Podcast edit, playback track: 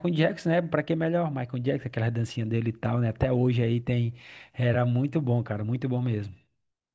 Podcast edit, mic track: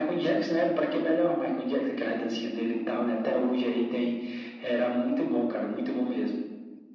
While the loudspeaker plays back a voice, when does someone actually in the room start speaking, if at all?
none

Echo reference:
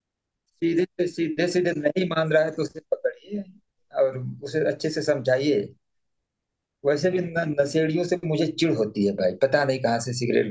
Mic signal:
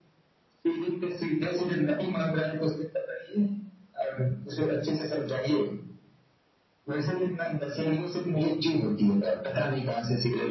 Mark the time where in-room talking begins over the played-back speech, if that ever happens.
none

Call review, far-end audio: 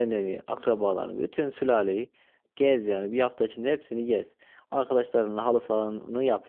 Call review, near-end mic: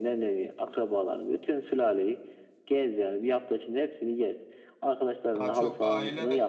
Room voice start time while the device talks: 5.4 s

